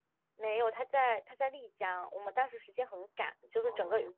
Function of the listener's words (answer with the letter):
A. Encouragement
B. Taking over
A